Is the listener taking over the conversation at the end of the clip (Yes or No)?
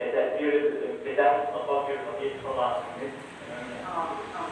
No